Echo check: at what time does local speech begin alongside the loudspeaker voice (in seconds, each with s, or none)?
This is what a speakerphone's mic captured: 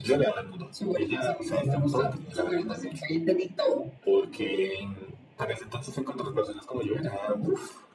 none